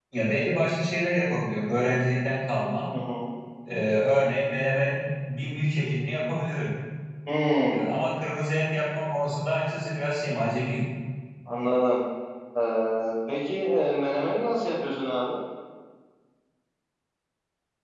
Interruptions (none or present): none